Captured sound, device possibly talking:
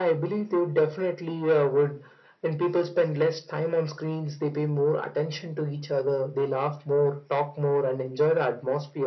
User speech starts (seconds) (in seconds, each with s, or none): none